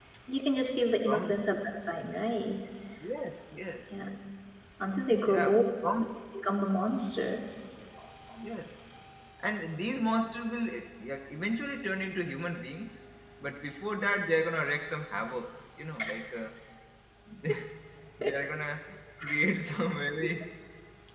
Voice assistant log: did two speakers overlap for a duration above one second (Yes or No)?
No